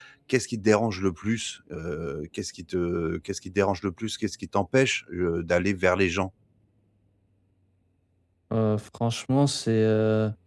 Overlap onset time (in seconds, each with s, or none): none